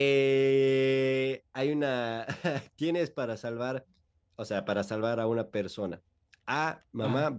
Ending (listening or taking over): listening